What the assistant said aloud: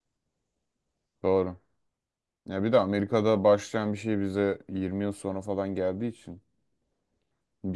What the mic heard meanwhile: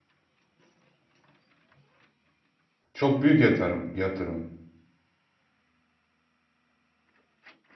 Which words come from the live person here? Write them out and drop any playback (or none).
Çok büyük yatırım yatırım.